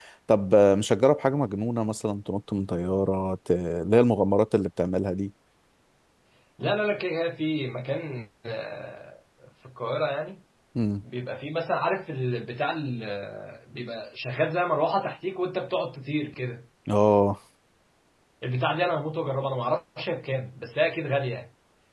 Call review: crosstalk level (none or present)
none